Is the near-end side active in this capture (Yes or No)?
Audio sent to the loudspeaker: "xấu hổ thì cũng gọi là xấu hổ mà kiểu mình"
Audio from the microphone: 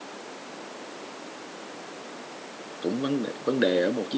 Yes